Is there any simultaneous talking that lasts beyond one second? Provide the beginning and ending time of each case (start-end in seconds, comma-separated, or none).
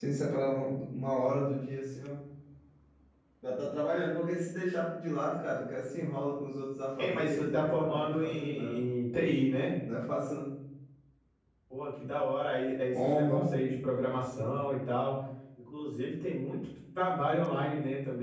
7.0-8.8